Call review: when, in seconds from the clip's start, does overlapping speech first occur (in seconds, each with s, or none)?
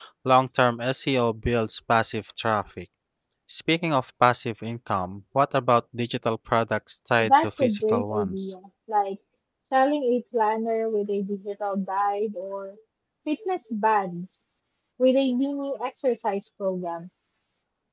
7.2 s